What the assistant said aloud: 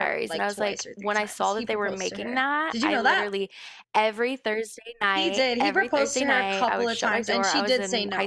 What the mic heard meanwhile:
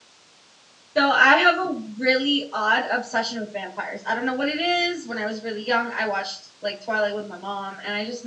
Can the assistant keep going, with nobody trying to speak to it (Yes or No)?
No